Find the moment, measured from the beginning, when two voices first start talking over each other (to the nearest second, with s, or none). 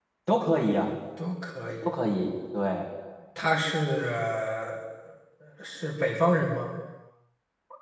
none